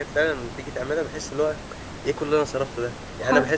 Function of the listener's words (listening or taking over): listening